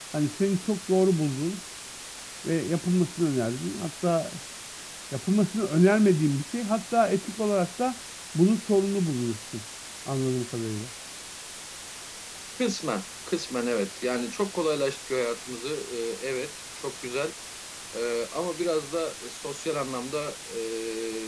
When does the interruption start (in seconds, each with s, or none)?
none